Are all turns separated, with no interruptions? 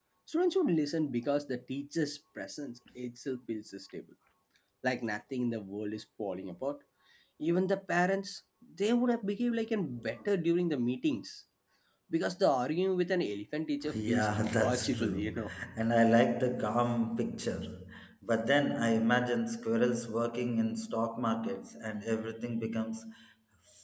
No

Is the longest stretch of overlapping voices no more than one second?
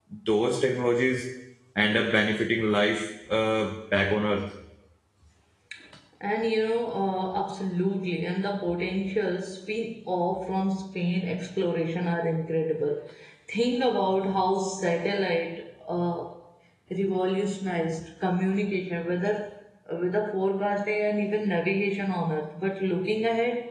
Yes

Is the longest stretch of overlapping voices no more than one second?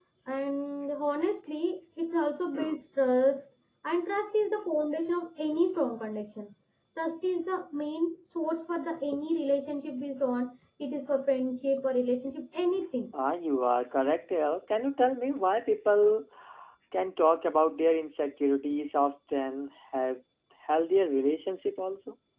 Yes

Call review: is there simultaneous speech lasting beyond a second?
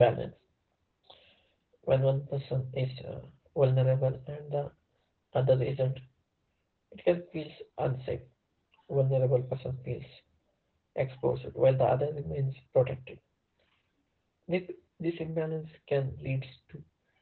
No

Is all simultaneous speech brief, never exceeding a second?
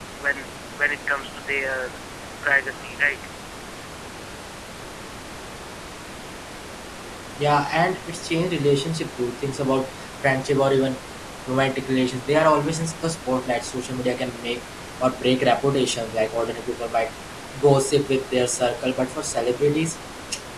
Yes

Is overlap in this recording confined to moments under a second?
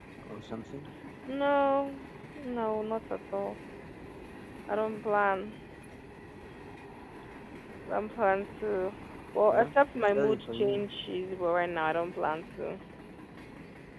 No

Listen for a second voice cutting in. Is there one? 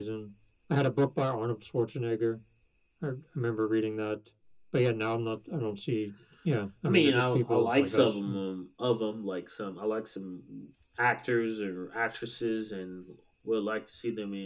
Yes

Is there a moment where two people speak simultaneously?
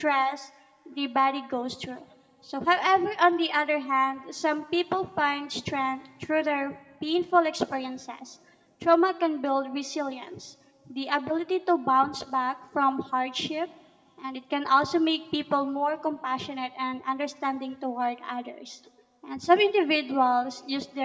No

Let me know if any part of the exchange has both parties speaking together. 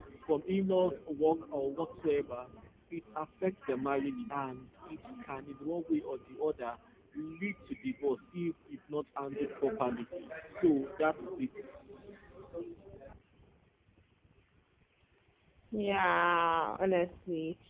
No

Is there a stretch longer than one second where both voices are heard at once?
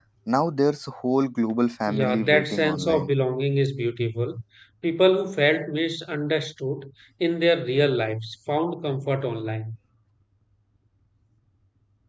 Yes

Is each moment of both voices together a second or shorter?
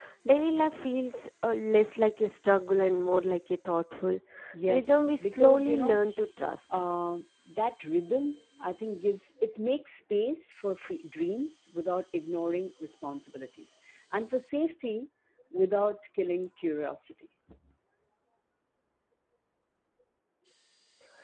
No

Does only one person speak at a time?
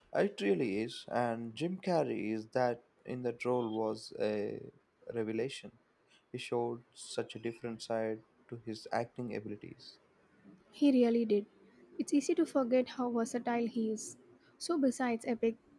Yes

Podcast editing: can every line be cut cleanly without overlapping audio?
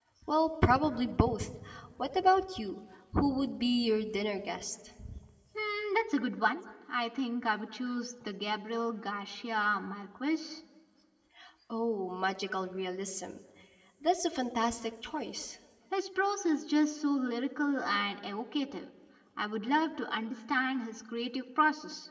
Yes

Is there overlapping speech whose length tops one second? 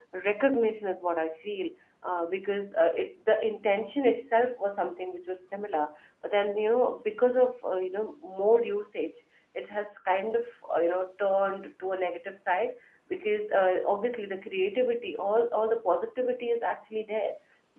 No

